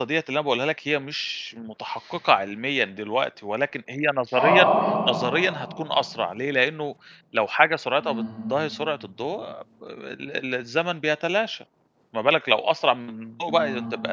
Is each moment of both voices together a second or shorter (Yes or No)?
Yes